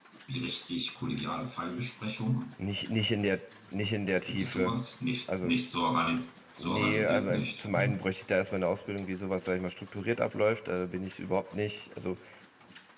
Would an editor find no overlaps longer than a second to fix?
No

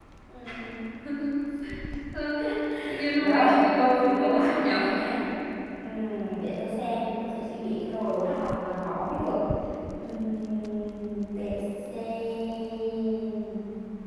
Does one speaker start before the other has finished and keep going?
Yes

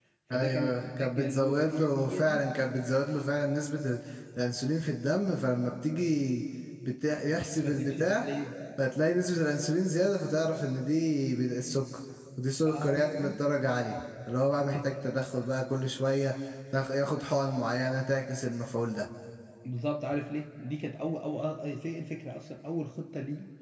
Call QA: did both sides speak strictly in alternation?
No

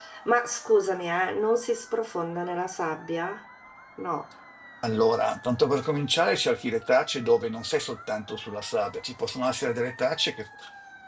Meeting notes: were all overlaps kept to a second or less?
Yes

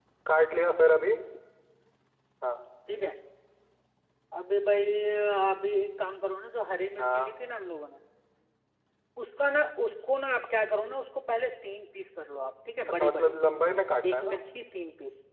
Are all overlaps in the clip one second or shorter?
No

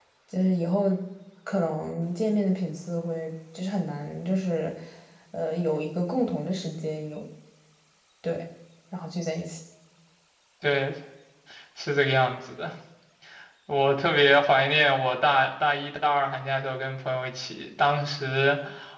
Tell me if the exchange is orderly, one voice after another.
Yes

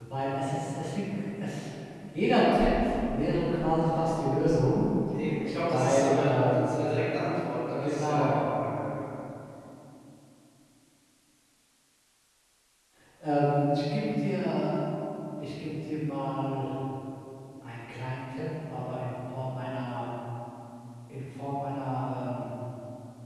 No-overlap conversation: No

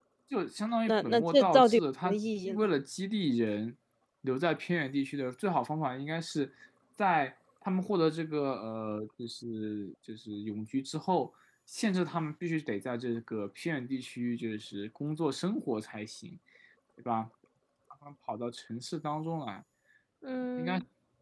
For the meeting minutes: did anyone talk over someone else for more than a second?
Yes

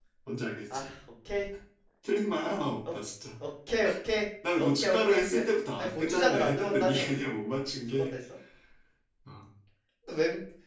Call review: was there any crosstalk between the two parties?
Yes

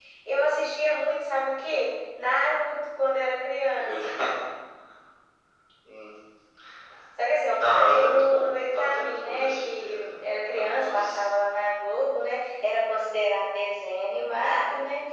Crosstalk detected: Yes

